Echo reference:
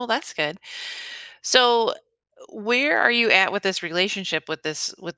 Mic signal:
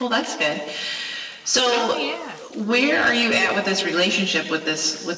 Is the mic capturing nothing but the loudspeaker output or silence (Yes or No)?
No